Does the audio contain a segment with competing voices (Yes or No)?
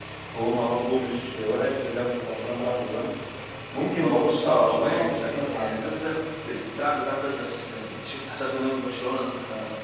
Yes